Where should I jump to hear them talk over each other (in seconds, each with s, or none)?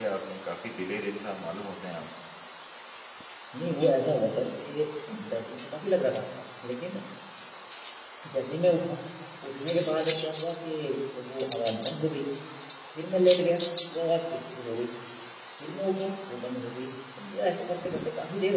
none